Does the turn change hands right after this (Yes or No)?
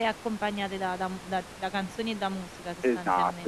Yes